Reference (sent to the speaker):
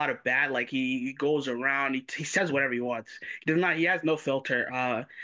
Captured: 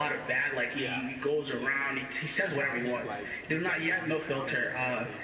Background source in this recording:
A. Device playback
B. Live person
B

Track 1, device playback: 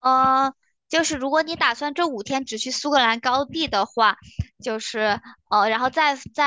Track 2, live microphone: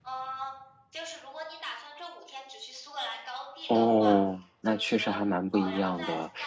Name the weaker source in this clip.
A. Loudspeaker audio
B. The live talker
A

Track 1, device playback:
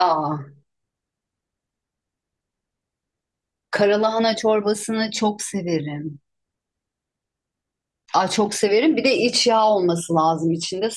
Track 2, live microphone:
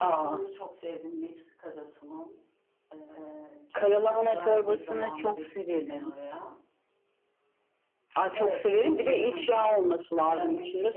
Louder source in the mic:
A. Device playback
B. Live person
A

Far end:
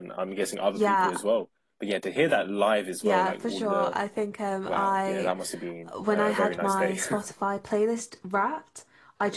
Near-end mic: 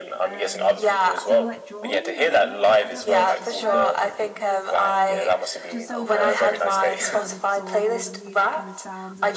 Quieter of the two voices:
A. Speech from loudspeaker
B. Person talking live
B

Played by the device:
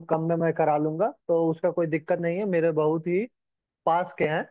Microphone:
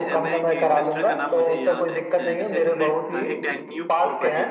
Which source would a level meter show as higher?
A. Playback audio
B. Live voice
A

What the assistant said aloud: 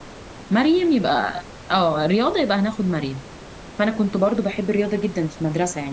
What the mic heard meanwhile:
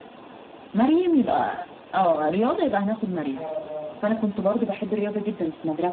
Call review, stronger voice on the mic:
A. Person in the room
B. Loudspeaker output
B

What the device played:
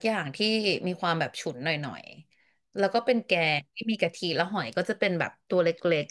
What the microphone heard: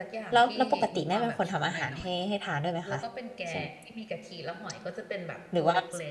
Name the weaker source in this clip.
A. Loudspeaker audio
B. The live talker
A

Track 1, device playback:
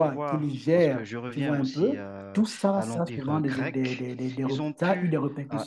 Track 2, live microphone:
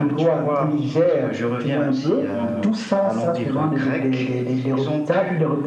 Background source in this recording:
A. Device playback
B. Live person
B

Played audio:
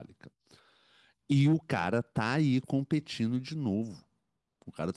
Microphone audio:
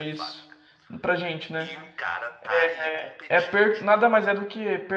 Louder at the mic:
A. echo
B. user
B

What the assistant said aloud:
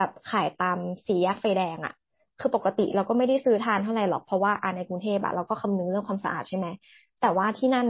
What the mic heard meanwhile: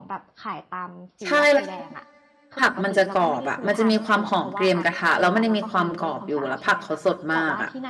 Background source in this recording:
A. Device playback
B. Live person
A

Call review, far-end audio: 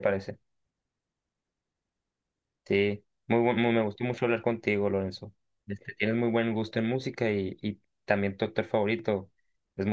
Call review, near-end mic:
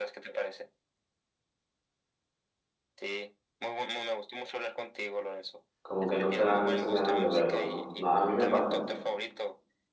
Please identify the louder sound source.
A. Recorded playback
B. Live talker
B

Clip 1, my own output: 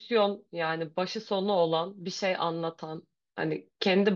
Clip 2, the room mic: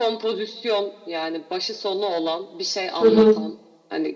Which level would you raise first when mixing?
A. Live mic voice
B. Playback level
B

